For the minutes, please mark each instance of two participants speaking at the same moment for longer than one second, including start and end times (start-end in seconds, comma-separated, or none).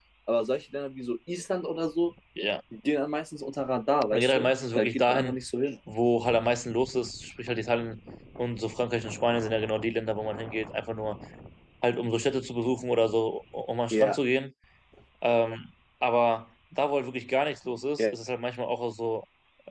4.1-5.4